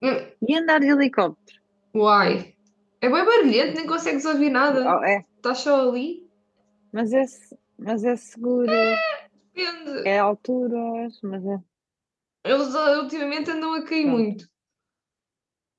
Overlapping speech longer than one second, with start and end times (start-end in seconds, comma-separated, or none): none